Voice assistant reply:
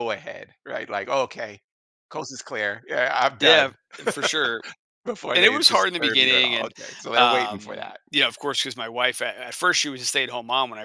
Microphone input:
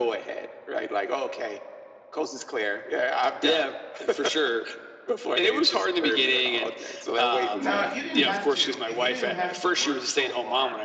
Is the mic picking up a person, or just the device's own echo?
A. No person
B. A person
B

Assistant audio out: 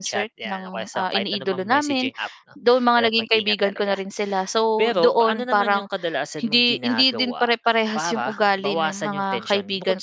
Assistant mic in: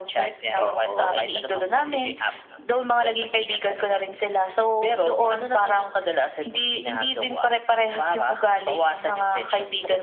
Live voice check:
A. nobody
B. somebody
B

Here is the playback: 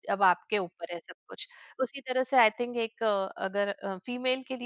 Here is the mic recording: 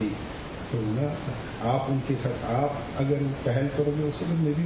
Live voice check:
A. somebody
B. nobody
A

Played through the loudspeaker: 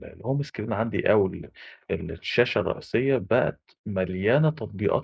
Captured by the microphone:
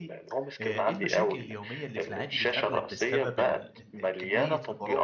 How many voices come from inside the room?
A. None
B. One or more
B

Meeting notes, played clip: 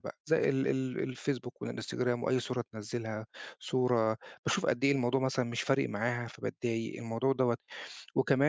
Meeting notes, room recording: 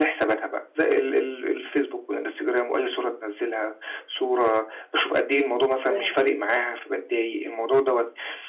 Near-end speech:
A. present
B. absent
A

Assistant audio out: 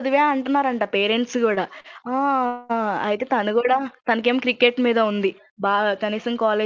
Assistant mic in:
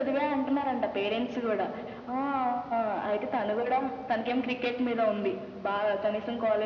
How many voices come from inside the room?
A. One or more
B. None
B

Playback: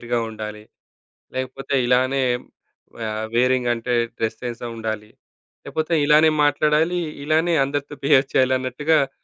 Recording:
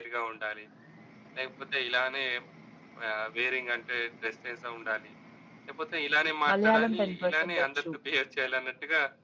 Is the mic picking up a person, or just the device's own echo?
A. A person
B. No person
A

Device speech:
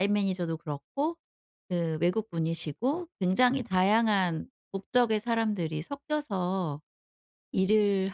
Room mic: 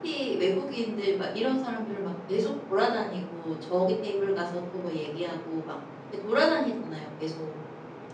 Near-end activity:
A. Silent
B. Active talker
B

